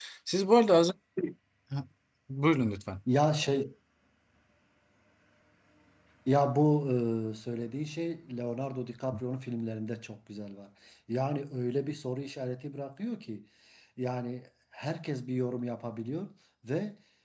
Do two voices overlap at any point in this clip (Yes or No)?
No